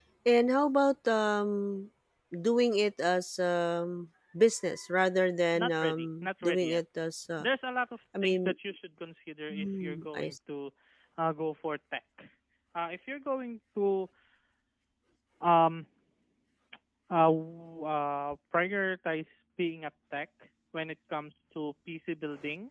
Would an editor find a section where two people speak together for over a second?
Yes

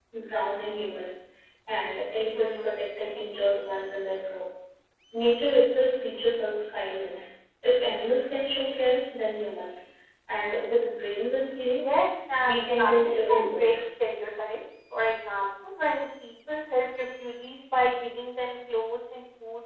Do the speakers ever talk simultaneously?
Yes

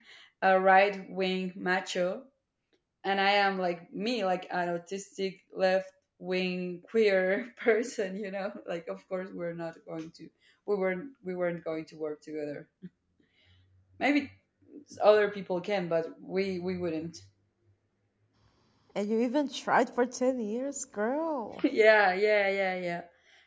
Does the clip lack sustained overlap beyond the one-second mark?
Yes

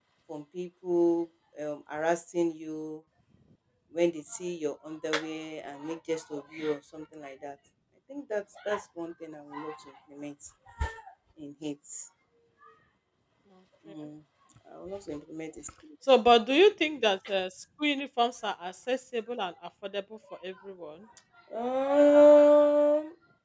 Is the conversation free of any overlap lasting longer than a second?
Yes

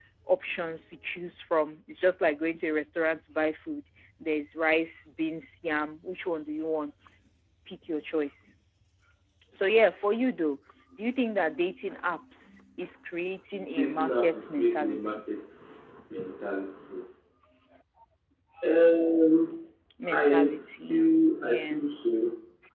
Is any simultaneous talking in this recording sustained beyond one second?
Yes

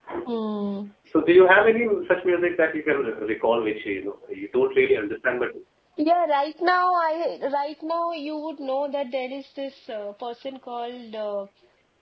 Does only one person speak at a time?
Yes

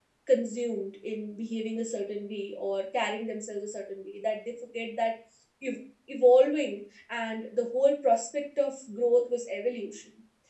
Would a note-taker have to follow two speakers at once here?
No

